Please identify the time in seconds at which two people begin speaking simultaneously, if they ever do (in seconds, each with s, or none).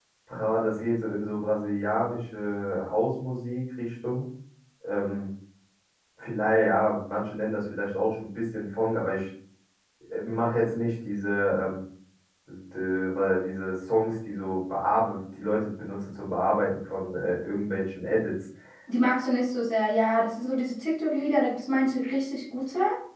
none